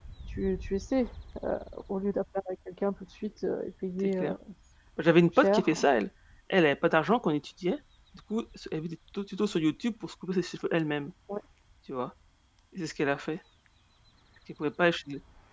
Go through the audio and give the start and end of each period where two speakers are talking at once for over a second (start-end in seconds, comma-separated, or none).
none